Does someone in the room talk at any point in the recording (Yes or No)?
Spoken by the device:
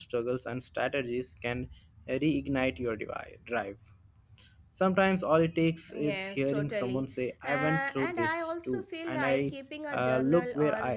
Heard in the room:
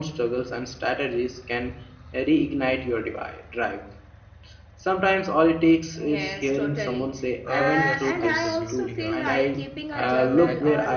Yes